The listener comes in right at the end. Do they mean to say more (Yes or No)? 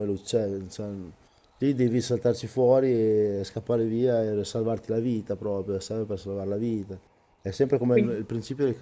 No